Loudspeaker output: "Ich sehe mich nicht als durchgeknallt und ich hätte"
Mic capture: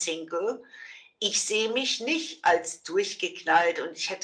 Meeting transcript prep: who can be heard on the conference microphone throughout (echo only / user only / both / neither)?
echo only